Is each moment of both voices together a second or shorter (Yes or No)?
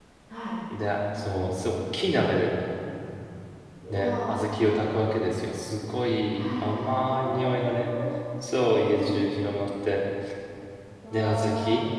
No